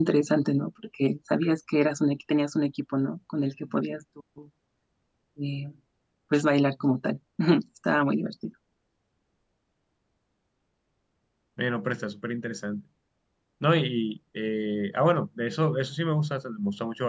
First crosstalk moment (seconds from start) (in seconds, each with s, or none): none